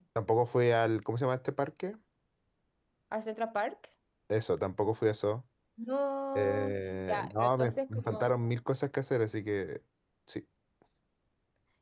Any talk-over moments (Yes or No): Yes